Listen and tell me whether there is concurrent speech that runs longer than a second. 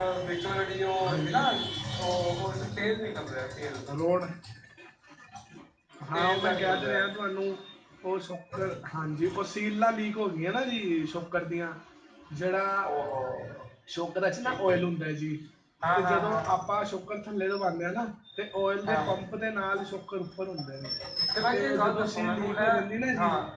Yes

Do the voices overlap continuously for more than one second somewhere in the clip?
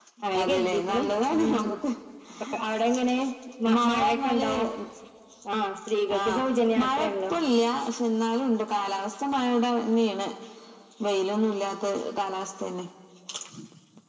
Yes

